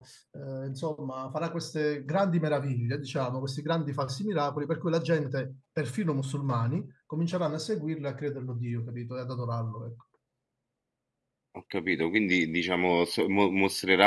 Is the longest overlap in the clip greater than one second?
No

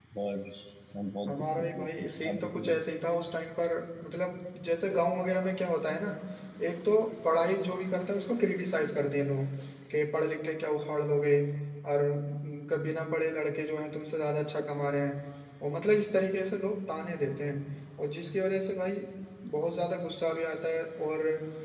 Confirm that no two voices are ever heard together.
No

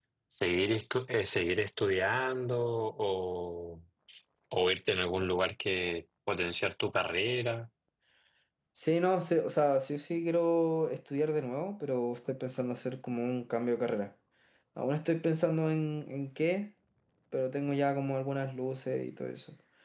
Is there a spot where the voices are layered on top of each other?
No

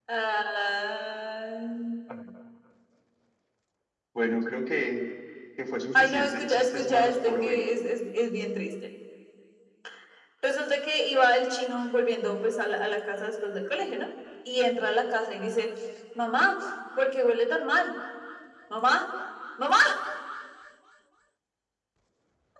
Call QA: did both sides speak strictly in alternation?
No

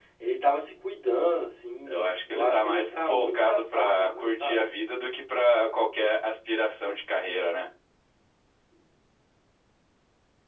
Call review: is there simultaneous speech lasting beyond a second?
Yes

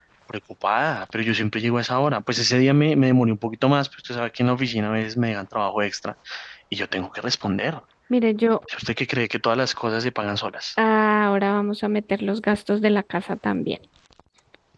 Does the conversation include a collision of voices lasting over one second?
No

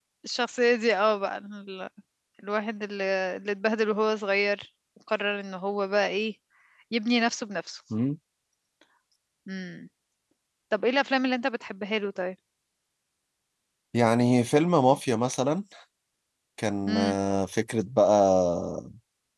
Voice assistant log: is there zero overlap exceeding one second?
Yes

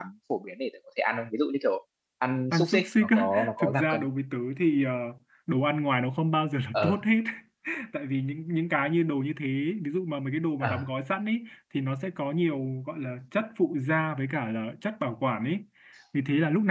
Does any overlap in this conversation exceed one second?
Yes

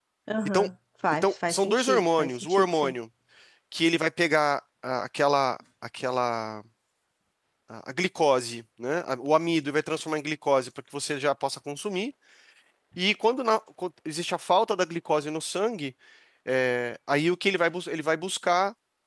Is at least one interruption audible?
Yes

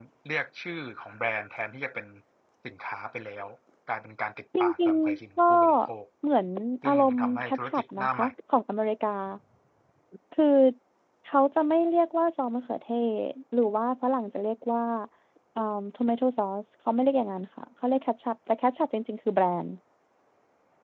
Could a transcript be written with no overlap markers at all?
No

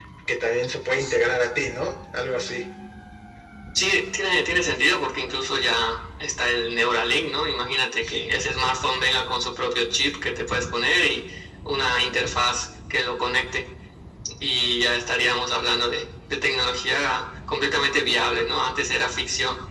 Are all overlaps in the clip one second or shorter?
Yes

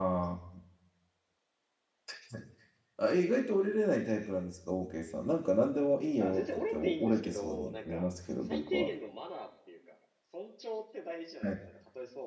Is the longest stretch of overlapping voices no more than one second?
No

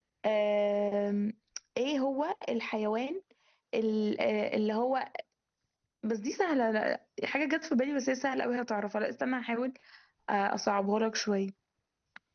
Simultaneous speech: No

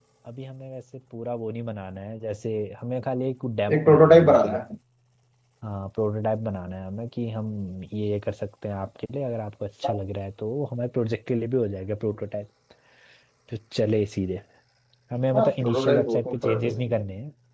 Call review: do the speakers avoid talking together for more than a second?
No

